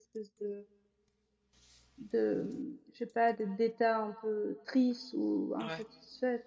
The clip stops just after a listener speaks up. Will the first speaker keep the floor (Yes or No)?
Yes